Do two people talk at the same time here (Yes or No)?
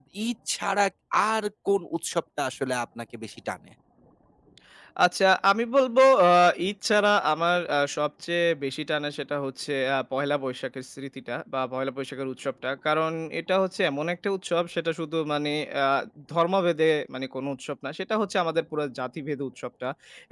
No